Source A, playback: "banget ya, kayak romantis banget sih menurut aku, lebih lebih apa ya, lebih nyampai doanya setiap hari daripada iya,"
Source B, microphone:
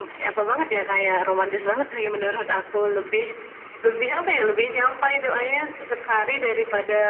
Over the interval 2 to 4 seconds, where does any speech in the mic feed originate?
echo only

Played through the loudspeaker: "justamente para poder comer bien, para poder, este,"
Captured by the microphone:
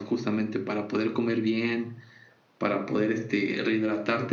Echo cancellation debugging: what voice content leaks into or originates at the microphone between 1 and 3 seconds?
echo only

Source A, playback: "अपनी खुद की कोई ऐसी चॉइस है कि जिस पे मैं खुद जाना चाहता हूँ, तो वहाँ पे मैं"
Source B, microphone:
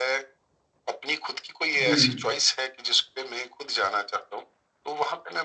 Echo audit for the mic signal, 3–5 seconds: echo only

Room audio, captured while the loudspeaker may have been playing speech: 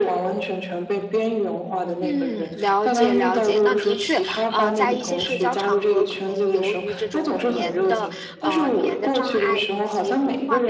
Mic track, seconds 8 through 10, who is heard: both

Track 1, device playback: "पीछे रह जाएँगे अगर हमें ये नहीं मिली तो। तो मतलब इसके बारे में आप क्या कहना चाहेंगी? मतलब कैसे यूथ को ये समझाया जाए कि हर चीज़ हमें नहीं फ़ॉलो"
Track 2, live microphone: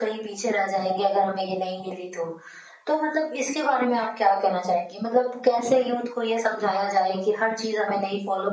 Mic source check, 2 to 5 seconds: echo only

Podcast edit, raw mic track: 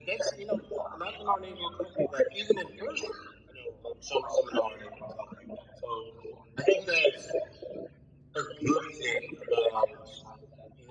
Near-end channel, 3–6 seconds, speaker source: echo only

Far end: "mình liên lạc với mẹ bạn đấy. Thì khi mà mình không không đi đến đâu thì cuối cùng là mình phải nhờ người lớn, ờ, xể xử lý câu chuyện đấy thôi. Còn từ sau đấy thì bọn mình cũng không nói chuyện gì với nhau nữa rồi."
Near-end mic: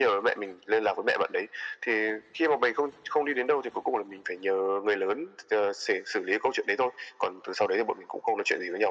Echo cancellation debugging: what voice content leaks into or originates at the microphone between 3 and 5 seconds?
echo only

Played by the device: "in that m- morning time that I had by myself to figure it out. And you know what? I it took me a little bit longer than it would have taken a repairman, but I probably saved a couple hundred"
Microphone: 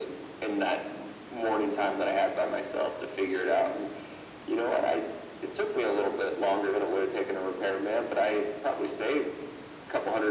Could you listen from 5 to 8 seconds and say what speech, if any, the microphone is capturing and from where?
echo only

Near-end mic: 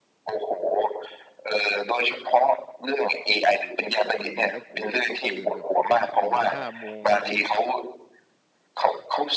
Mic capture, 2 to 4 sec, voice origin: echo only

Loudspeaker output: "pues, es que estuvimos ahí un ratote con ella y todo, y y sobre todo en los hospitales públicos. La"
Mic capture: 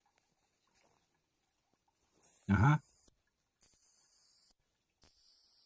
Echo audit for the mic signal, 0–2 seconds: neither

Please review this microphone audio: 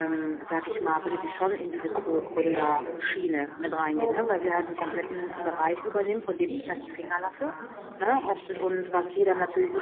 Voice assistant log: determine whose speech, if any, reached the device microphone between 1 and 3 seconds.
both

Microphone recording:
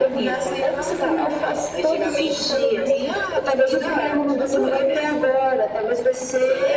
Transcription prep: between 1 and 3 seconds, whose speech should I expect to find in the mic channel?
echo only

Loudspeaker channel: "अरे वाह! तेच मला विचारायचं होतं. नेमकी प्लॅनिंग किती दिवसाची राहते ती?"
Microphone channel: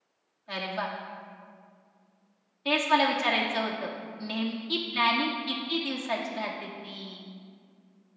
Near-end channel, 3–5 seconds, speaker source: echo only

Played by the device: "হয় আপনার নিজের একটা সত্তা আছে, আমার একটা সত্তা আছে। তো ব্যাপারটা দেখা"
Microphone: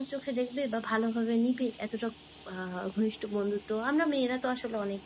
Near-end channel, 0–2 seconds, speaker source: user only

